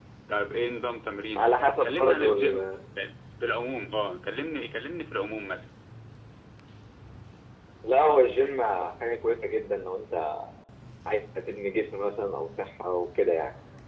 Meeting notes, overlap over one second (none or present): present